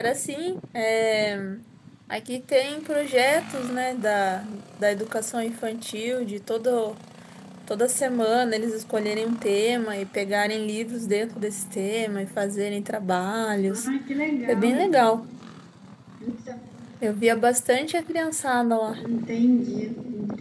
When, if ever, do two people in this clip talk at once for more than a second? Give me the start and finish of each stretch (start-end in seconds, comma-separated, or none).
none